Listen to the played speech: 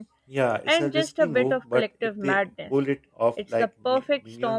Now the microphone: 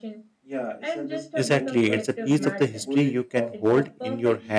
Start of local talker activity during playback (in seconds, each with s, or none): 1.3 s